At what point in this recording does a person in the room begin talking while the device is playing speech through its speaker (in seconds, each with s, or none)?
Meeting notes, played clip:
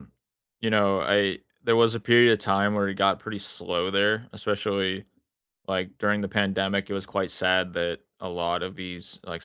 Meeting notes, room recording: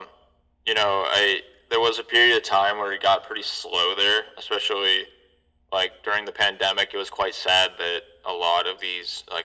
none